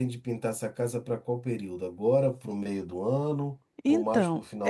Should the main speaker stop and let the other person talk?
Yes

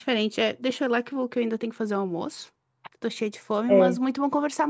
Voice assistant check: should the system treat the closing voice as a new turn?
No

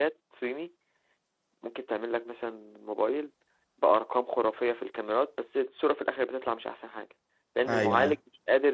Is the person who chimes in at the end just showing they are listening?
Yes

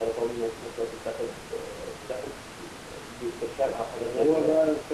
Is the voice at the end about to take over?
Yes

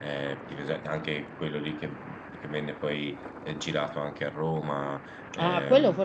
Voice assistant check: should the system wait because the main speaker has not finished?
No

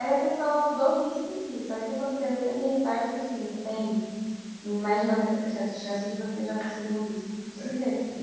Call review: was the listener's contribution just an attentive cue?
No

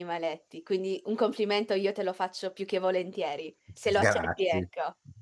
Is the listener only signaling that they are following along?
No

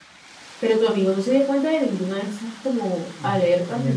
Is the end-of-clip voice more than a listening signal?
Yes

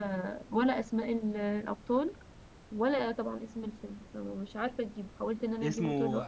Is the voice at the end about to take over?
Yes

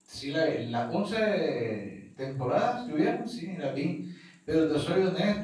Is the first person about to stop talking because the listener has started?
No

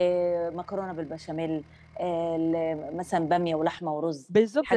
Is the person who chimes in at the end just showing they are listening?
No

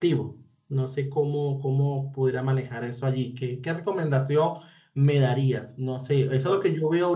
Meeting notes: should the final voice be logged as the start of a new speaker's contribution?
No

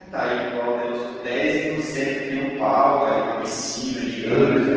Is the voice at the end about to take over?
No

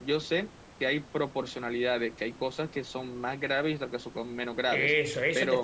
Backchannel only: No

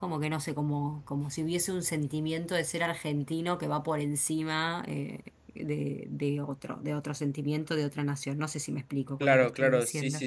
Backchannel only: No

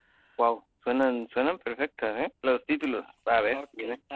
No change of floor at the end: No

